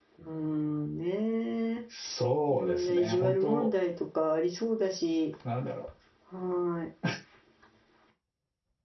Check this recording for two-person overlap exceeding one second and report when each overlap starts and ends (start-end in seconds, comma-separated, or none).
2.5-3.7